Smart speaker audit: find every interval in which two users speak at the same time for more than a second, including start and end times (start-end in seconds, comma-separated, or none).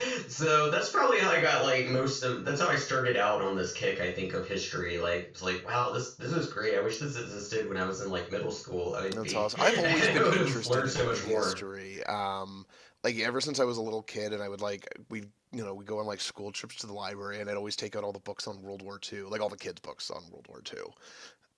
9.1-11.6